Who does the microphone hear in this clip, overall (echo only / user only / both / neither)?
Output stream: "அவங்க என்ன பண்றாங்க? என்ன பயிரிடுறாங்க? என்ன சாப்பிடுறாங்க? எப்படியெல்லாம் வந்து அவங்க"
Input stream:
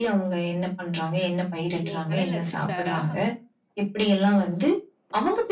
both